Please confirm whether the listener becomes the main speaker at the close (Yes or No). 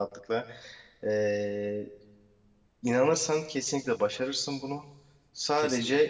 No